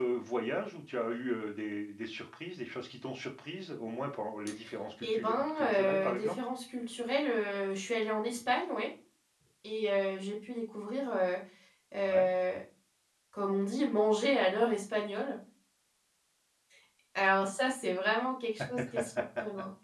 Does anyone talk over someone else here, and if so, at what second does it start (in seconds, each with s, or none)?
5.0 s